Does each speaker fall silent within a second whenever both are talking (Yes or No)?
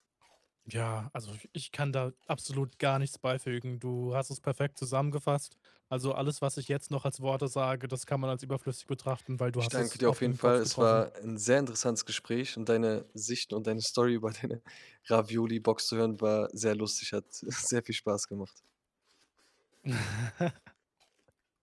No